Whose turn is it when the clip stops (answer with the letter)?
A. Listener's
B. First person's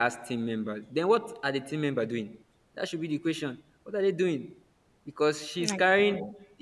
B